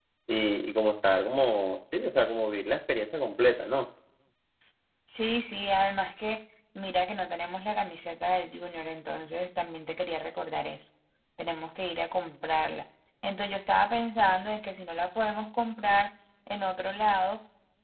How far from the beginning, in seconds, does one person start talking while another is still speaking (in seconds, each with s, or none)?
none